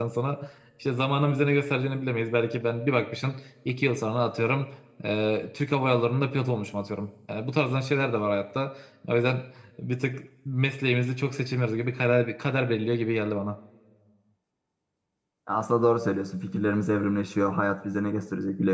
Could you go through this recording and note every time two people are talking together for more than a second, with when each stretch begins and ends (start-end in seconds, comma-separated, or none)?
none